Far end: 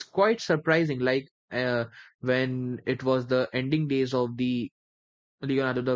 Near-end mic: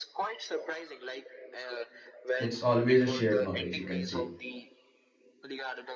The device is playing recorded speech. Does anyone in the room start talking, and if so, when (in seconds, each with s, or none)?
2.4 s